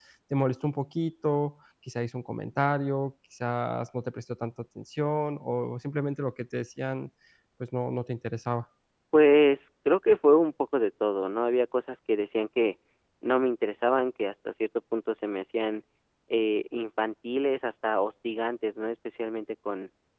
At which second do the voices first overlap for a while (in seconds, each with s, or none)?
none